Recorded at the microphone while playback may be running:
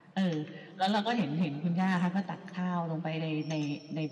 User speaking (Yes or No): No